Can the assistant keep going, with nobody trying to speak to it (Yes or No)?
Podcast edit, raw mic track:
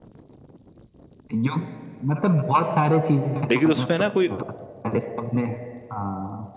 No